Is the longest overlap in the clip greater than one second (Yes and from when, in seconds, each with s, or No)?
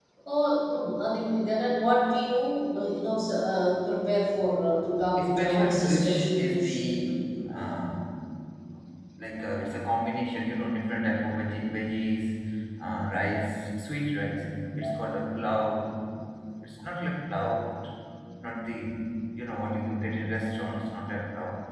Yes, from 5.2 s